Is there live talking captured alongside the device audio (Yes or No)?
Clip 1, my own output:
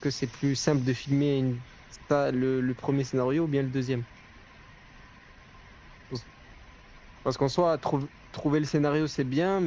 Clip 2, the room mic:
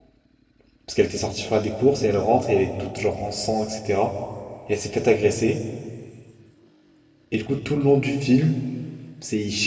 Yes